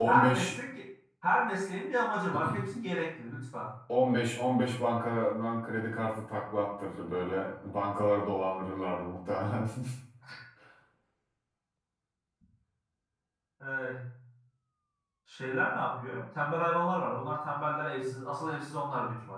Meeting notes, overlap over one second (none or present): none